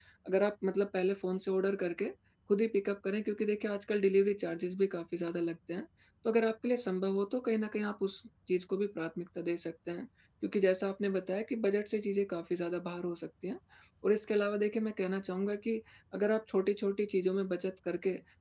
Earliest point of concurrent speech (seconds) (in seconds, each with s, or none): none